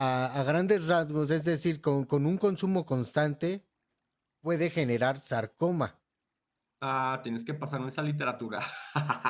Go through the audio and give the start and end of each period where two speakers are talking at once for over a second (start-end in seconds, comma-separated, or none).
none